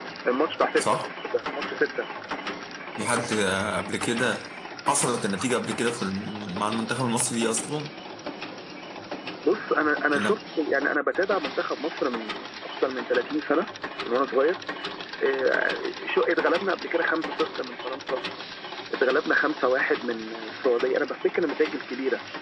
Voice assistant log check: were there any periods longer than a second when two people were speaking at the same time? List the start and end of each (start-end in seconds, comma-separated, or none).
none